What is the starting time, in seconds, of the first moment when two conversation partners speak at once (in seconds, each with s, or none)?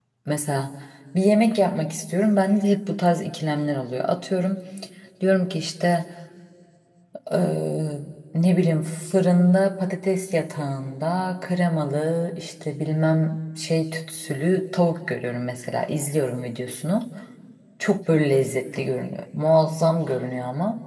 none